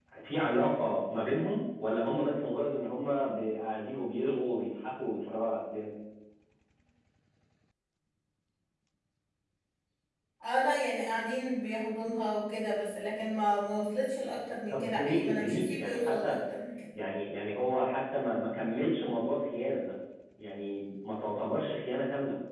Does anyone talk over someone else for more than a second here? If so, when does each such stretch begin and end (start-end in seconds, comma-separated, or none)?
14.7-16.3